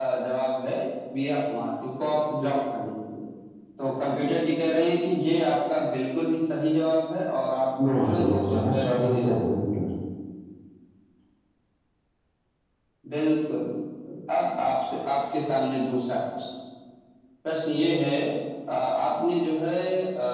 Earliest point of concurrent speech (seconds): 8 s

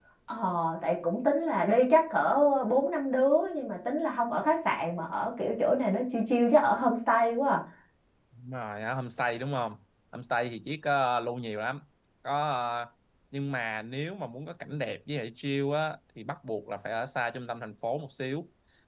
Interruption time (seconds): none

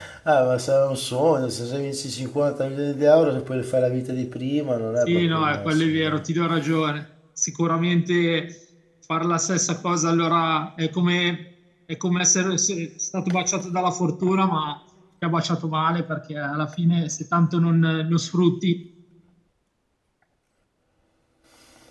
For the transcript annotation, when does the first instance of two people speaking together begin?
5 s

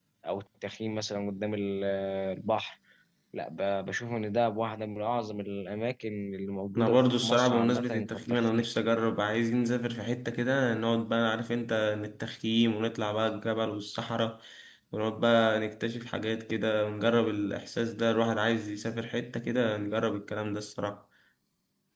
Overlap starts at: 7 s

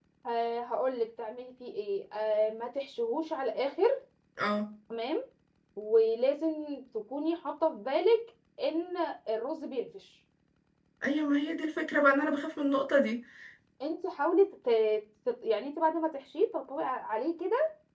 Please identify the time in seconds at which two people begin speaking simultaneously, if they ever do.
none

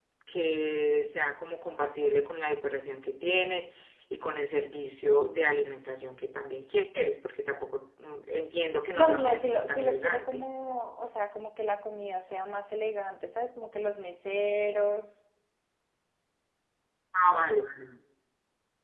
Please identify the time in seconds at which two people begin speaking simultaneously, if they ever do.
9 s

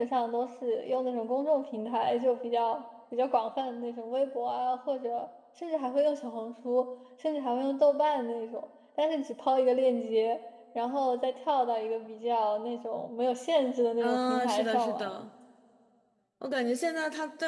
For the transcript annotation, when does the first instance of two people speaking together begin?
14 s

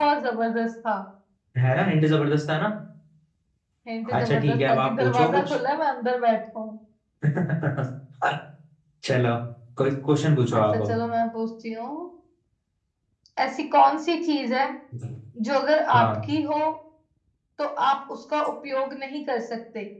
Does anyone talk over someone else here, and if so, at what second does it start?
4 s

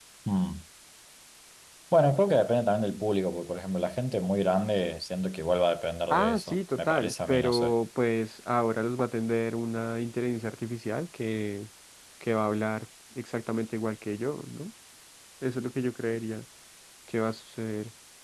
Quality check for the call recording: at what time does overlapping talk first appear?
6 s

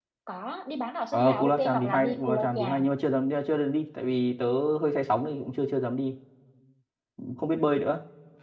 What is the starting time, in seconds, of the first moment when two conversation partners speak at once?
1 s

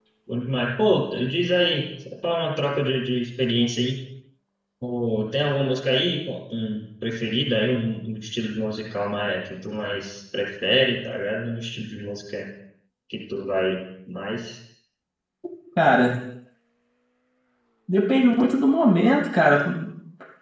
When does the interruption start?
none

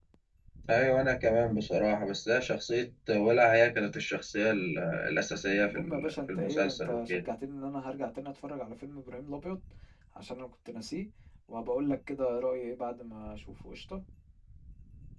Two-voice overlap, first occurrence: 6 s

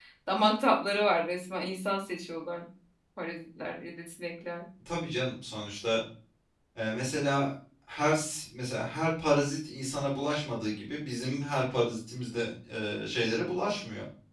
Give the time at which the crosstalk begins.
none

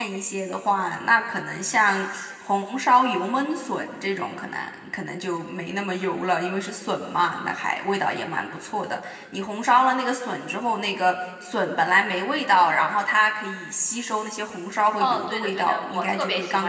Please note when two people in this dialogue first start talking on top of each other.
15 s

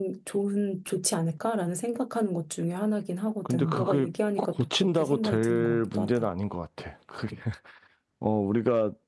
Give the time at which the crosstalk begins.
3 s

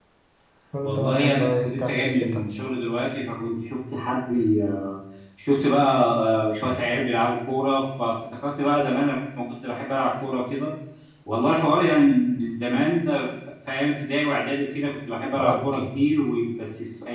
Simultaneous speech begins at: 1 s

